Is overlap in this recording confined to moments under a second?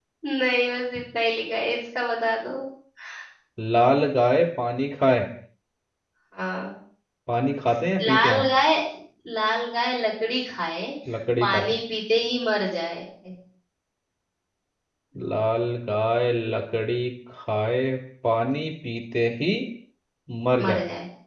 Yes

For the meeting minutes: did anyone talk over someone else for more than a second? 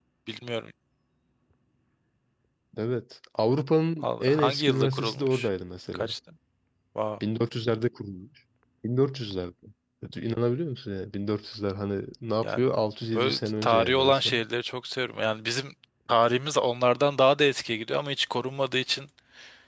Yes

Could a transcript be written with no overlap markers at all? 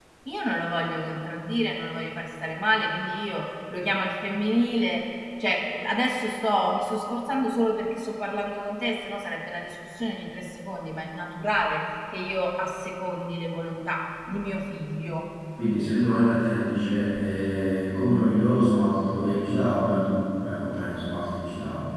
Yes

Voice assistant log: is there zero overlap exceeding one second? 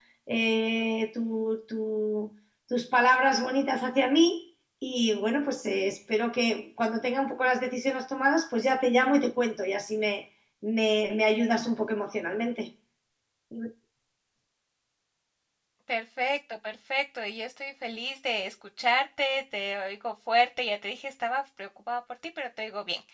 Yes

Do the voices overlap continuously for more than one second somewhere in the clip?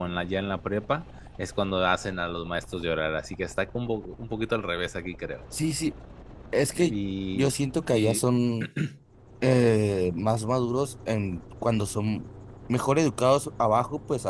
No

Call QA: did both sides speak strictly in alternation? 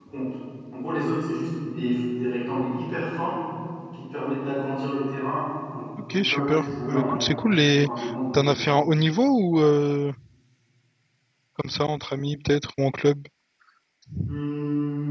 No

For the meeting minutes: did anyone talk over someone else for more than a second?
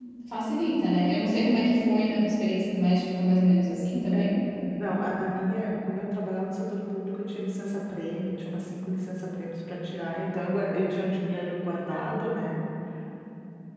No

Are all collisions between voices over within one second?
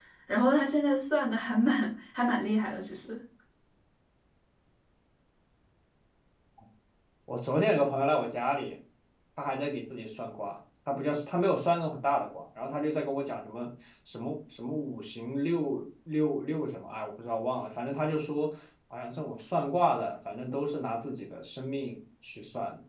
Yes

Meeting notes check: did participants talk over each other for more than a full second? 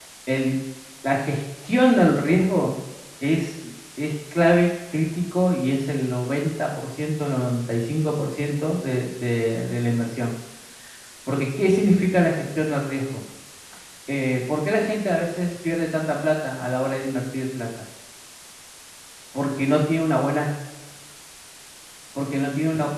No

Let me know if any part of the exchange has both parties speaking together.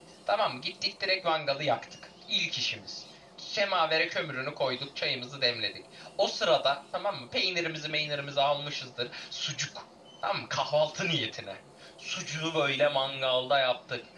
No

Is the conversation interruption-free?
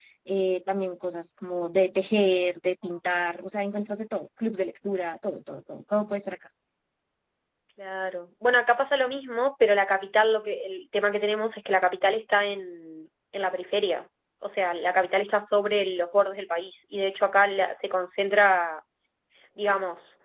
Yes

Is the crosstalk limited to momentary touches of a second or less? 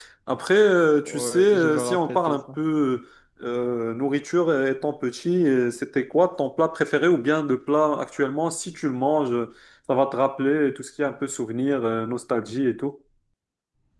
No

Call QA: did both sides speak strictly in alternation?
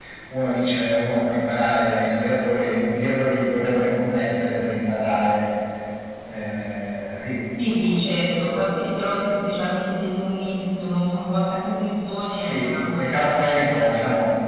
No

